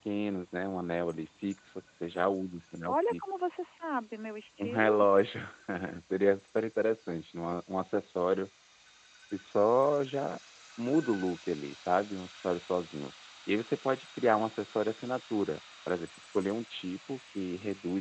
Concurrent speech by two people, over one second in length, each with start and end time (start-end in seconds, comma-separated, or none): none